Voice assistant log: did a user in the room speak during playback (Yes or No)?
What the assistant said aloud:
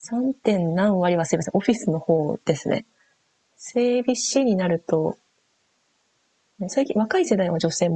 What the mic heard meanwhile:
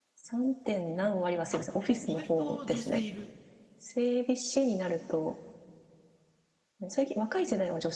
Yes